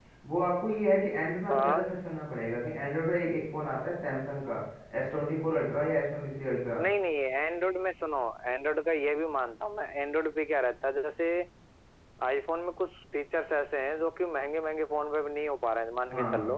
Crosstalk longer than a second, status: none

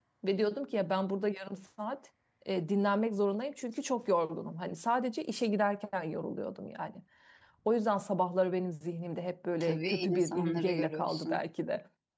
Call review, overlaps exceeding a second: present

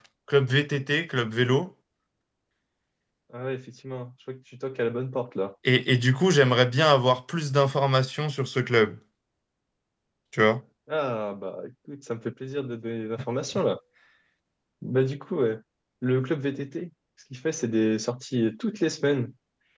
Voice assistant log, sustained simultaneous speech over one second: none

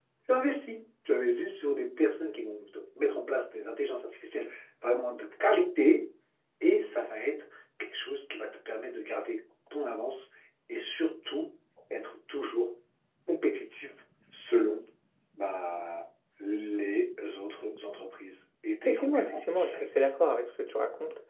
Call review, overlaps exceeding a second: present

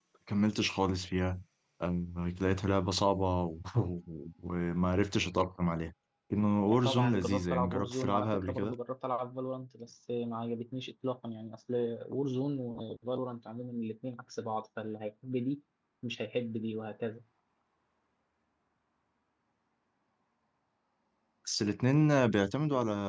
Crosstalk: present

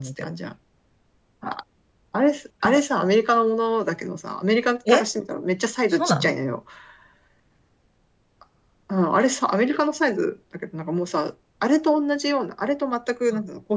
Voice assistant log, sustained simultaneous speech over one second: none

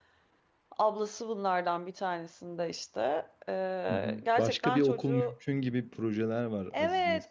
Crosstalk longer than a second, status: present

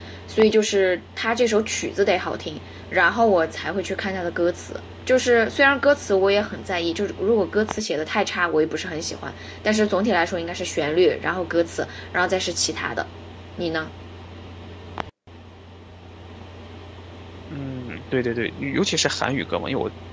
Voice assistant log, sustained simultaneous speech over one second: none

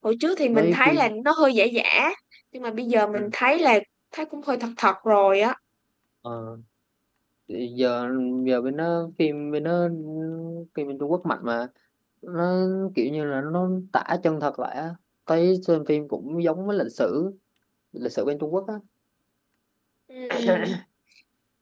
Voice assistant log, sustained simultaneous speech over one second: none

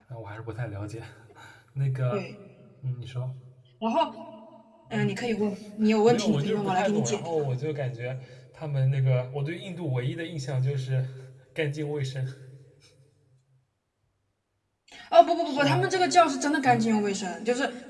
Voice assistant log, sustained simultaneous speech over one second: present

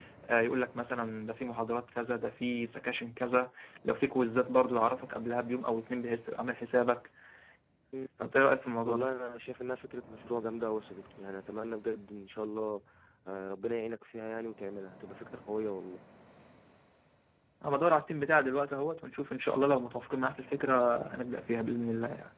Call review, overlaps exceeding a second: none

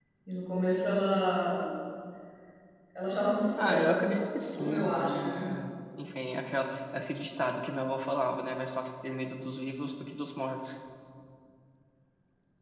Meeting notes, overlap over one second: present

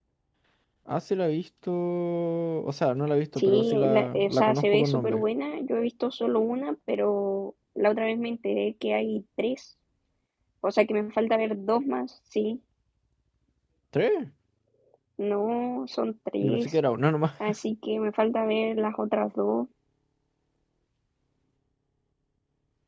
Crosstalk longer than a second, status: present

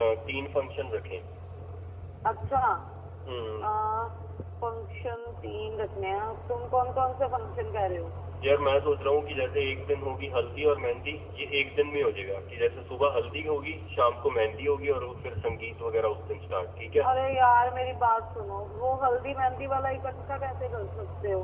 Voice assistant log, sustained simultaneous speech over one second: none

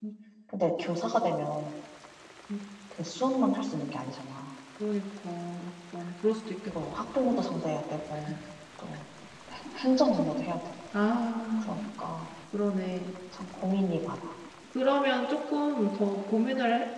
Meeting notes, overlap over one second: none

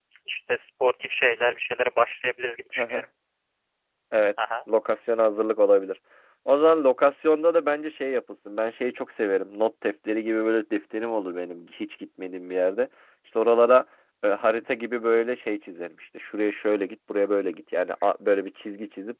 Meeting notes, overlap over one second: none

